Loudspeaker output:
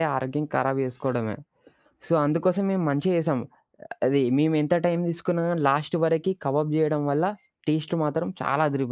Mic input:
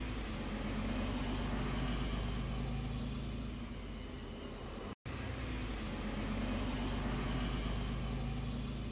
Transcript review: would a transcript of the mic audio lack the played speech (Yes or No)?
Yes